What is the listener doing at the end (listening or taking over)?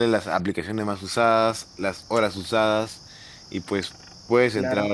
listening